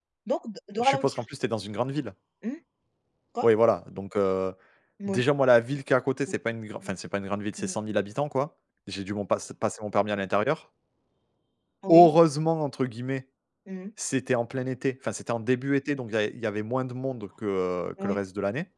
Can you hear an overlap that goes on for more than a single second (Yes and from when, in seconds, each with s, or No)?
No